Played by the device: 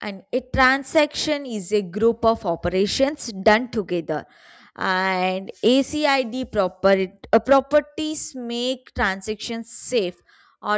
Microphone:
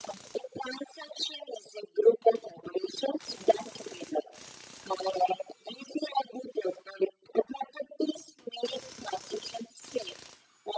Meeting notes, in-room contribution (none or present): none